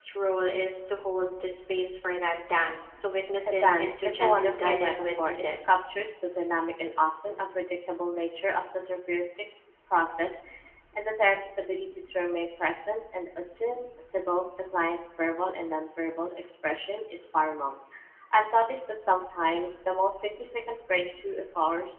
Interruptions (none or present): present